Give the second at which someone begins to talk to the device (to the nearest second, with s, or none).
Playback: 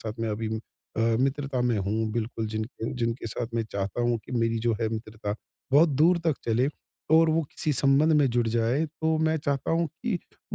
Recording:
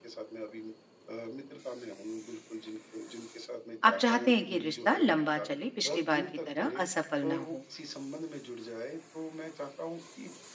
4 s